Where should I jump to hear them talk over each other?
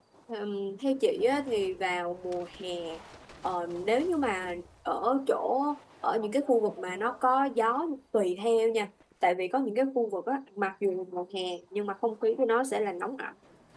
none

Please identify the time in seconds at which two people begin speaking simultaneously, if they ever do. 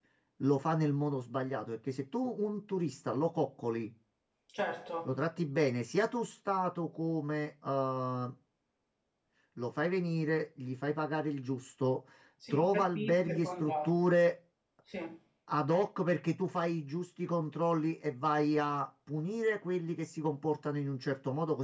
12.5 s

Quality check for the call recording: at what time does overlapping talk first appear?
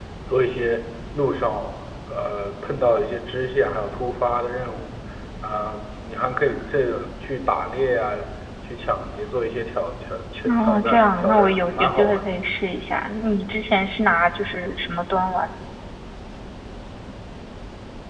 10.4 s

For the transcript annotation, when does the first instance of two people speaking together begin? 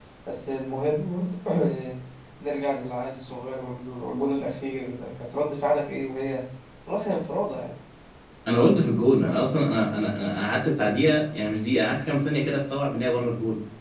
none

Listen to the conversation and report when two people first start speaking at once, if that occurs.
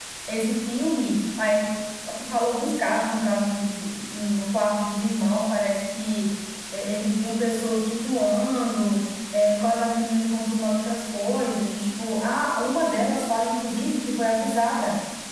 none

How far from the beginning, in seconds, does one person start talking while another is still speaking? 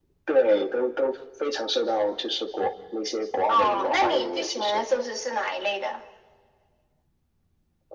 3.5 s

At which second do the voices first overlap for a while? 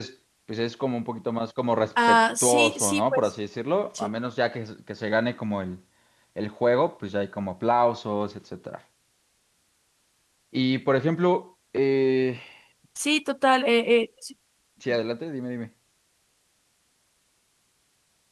2.0 s

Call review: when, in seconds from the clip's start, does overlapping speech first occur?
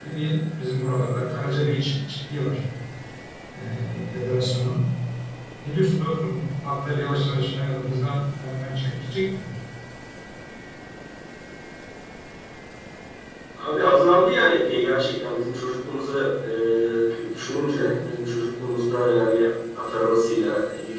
none

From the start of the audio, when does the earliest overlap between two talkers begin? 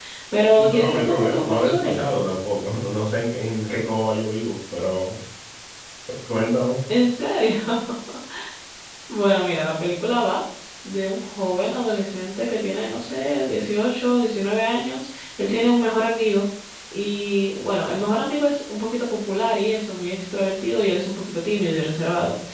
0.6 s

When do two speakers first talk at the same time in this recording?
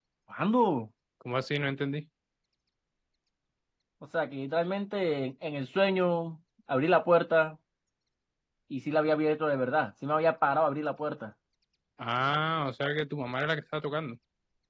none

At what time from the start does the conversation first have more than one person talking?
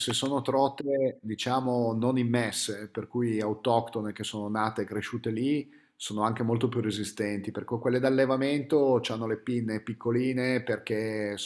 none

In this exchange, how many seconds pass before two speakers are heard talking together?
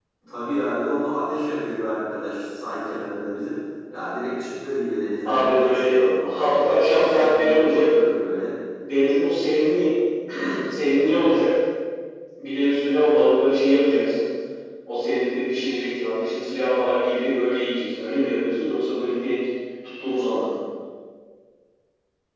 5.2 s

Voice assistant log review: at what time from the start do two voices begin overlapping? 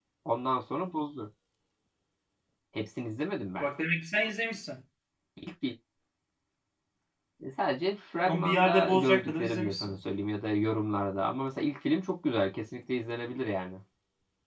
8.2 s

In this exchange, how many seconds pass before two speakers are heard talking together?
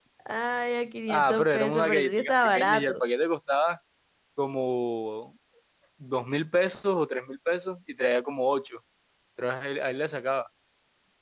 1.1 s

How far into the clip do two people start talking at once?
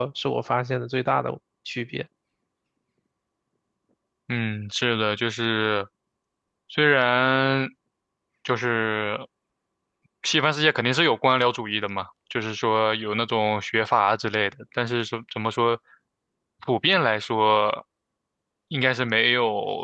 none

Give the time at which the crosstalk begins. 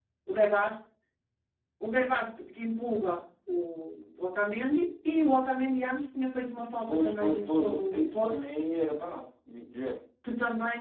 6.9 s

